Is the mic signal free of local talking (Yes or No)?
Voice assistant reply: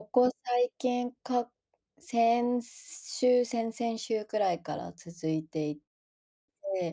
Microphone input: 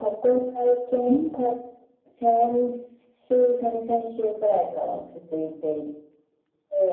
No